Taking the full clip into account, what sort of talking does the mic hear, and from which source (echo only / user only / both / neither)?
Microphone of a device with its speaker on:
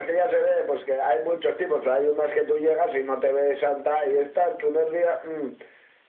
echo only